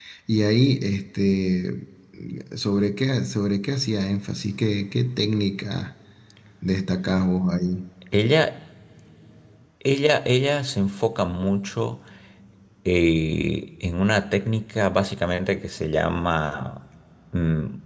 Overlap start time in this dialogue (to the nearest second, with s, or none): none